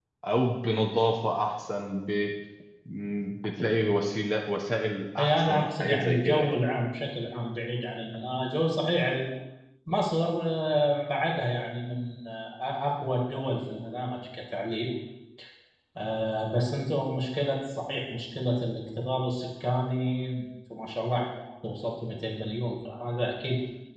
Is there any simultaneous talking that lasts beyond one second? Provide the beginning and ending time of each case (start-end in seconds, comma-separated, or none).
5.2-6.5